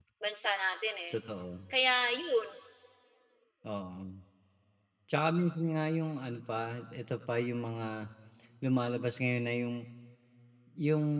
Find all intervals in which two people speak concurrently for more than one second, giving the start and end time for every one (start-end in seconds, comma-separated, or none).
none